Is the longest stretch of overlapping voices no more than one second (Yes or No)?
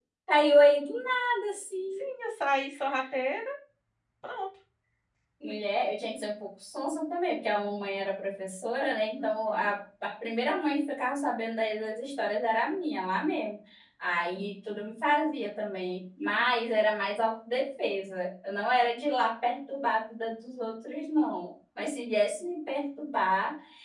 Yes